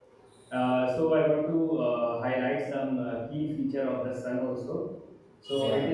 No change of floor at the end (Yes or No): Yes